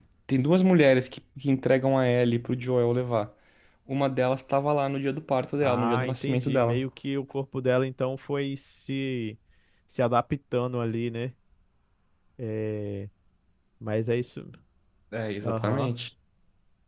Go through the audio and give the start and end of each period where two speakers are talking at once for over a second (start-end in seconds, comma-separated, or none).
5.6-6.8